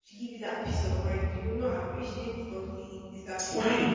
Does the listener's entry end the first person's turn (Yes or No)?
Yes